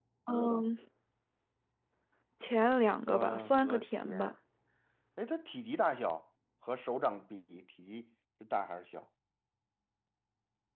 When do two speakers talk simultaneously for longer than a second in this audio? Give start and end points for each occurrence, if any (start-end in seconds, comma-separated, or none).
3.1-4.3